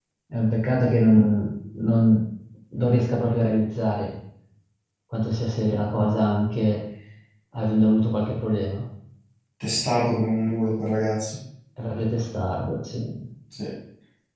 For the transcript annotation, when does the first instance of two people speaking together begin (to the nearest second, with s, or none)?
none